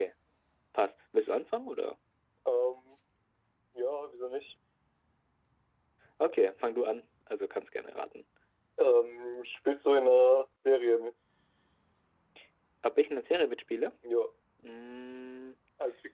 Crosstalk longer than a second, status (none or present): none